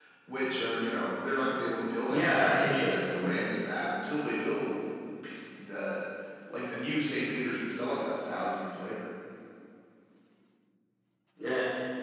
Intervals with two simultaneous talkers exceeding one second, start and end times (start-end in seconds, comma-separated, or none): 2.1-3.3